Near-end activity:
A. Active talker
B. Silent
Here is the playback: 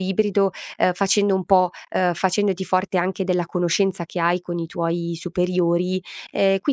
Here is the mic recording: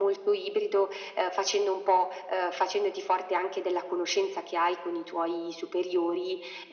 B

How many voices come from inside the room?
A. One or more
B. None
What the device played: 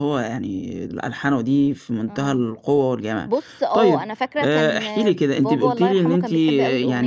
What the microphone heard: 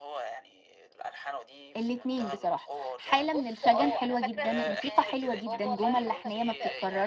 A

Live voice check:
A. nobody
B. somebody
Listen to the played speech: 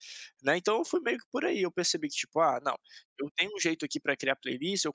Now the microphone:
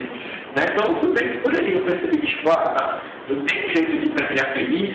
A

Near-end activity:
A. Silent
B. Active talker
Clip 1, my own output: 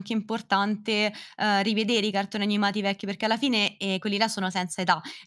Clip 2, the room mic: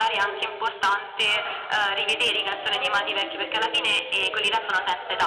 B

